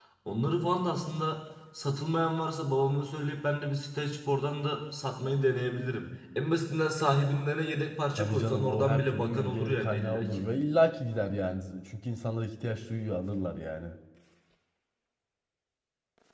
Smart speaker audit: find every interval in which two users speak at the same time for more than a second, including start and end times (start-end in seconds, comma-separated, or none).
8.2-10.4